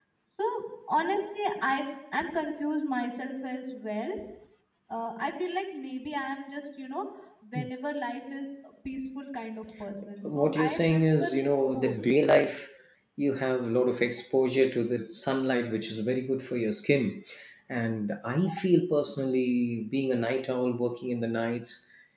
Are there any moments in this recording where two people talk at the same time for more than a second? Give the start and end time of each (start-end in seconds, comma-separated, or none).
10.2-12.0